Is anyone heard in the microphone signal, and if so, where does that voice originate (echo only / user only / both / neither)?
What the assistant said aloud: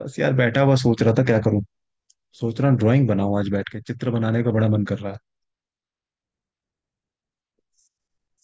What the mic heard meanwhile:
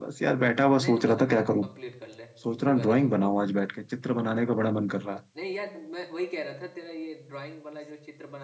both